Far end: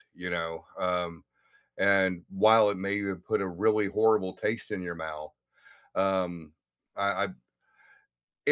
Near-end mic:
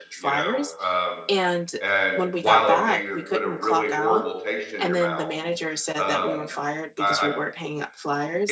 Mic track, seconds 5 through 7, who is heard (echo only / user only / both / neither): both